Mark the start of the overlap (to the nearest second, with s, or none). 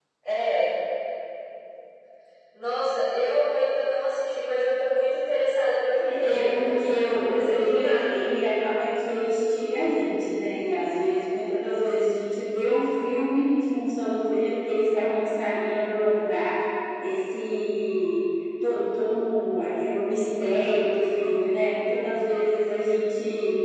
6 s